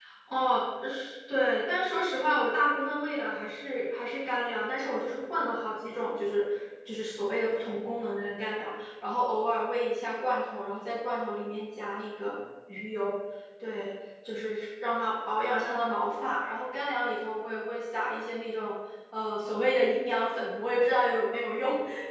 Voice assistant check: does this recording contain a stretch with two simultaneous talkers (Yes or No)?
No